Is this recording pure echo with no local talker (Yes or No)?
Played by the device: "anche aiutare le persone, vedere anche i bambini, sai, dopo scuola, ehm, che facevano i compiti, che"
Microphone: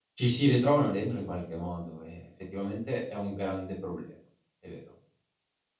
No